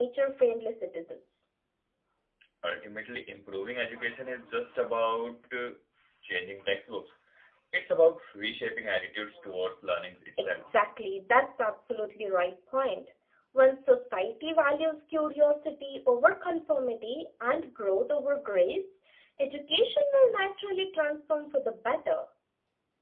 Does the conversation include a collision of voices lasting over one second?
No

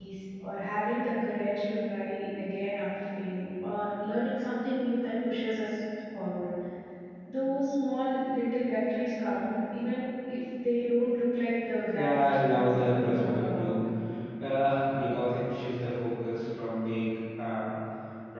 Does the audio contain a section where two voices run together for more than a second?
Yes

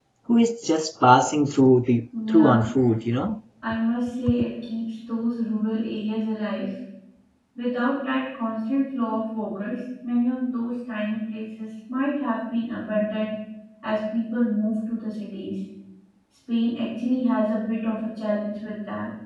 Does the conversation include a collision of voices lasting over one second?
No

